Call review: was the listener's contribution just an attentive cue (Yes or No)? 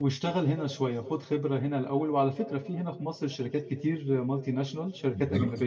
Yes